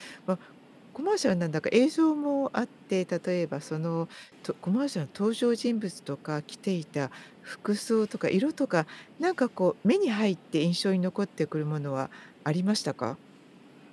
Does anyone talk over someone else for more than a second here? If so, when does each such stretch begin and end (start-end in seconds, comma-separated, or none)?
none